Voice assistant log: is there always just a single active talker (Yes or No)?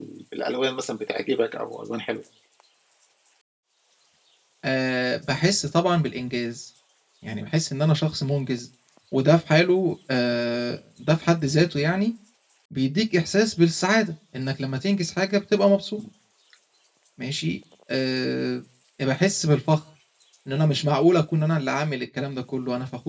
Yes